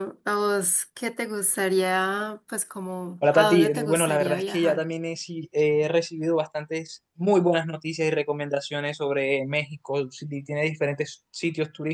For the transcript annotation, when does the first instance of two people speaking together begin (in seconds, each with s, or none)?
3.2 s